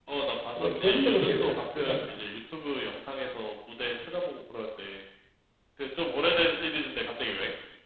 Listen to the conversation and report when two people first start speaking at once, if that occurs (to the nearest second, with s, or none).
1 s